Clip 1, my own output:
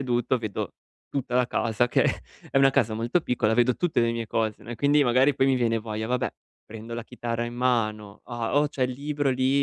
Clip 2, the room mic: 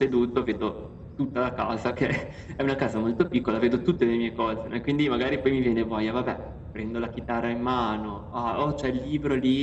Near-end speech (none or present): none